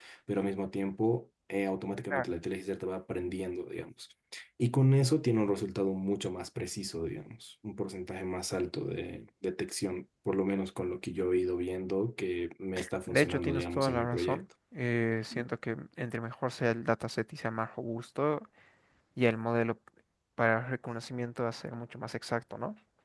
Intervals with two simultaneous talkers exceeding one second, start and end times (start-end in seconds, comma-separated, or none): 13.1-14.4